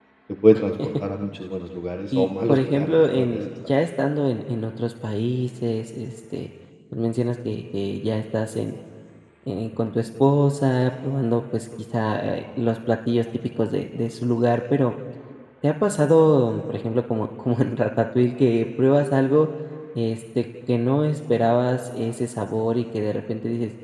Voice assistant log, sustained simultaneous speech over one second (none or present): present